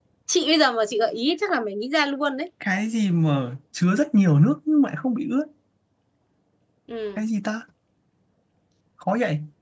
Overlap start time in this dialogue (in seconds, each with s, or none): none